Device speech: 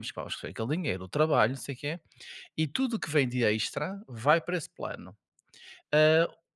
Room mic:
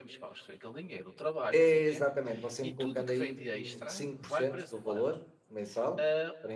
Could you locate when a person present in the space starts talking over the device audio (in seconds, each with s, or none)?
1.5 s